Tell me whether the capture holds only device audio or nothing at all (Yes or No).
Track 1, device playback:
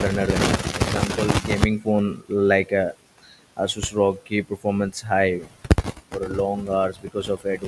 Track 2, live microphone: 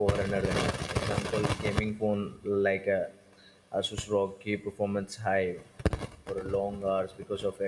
Yes